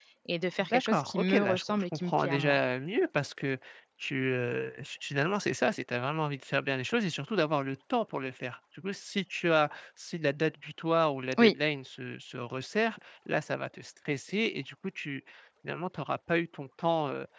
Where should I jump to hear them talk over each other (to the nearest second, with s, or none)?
1 s